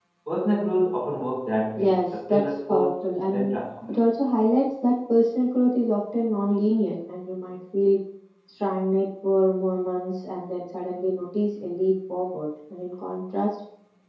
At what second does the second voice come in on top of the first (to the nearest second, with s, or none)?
2 s